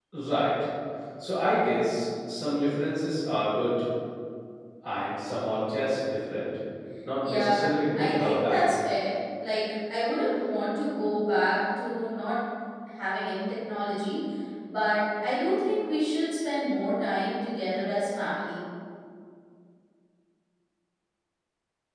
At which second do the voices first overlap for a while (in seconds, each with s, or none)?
7.3 s